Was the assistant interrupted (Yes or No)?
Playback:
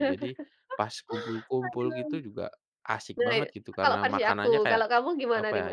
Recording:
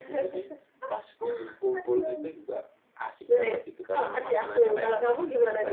Yes